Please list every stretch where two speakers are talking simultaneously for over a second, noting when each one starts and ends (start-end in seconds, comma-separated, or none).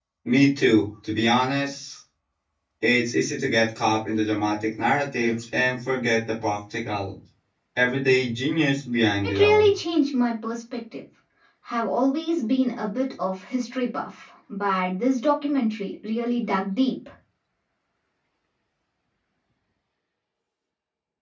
none